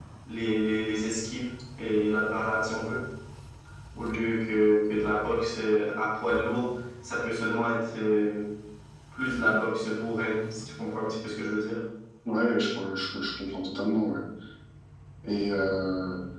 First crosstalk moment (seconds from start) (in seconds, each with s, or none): none